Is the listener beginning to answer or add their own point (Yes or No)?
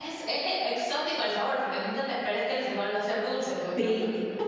Yes